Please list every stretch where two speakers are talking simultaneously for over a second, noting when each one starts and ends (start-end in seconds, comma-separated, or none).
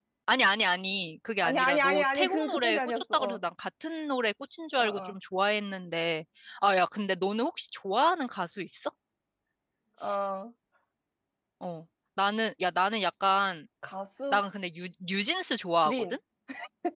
1.4-3.4